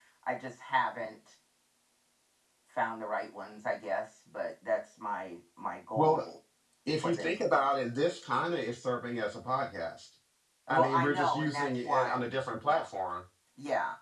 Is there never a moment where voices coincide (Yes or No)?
No